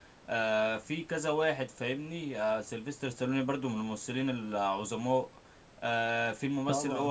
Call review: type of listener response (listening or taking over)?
listening